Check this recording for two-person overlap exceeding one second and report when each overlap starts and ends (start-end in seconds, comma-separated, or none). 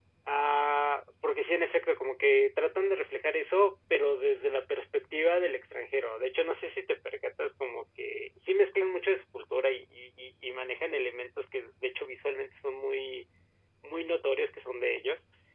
none